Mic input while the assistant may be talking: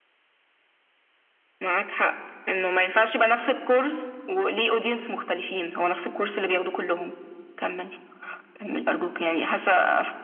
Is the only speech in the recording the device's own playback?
Yes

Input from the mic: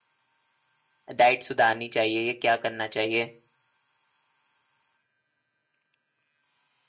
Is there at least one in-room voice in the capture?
Yes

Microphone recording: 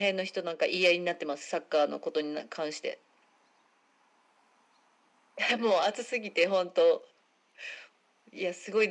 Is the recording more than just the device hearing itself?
No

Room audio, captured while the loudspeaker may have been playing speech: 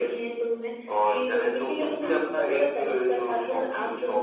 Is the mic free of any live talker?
Yes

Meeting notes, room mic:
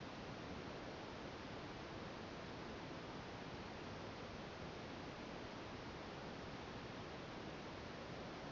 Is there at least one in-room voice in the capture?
No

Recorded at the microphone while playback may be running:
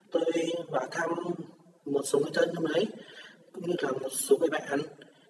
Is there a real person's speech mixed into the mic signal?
No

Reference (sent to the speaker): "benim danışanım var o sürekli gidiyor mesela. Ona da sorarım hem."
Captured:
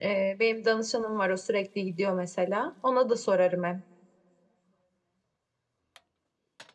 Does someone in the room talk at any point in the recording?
No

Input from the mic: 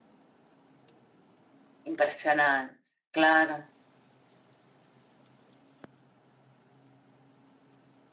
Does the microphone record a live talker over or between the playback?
Yes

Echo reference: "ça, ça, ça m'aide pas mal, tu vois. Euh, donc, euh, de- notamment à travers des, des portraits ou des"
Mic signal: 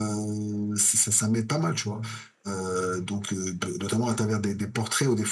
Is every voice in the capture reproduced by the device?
Yes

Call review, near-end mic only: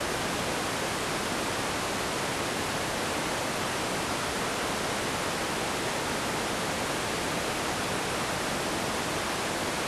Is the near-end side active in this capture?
No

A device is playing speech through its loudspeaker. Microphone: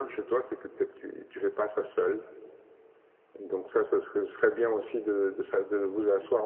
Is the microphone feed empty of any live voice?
Yes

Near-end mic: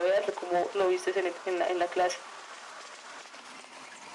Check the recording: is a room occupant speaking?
No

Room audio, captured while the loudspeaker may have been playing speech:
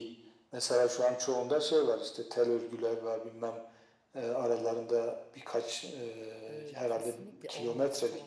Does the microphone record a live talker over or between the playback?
Yes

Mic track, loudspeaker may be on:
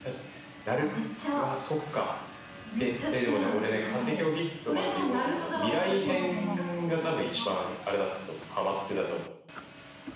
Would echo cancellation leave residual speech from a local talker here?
Yes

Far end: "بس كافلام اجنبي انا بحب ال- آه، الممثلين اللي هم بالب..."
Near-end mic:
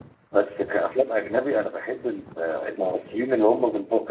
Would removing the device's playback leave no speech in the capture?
Yes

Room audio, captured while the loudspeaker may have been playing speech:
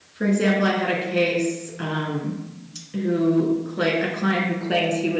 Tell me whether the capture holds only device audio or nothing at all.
No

